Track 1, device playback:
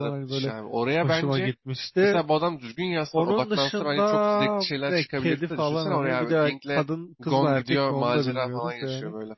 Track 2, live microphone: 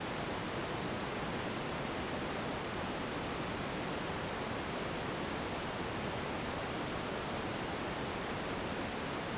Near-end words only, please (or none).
none